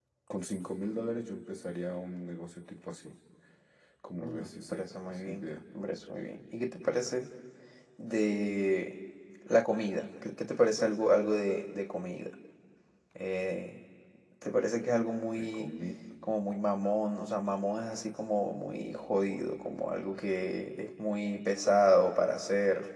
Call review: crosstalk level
present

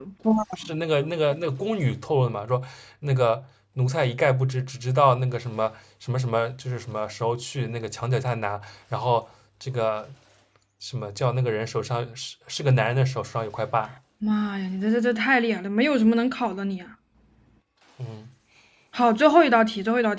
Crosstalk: none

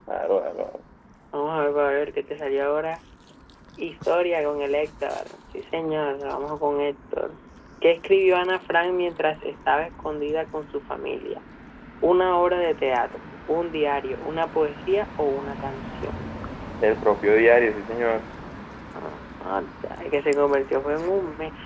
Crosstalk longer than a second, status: none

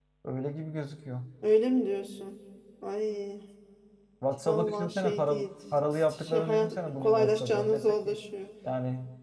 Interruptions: present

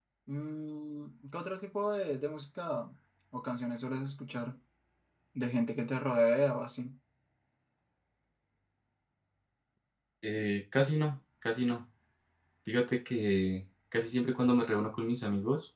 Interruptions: none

